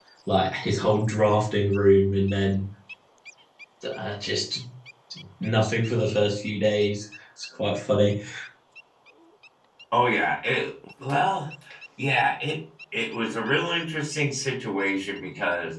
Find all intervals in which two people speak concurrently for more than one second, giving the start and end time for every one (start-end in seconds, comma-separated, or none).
none